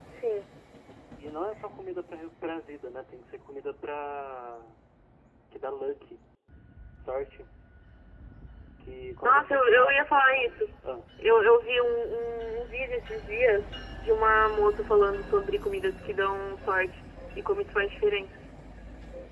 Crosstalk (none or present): present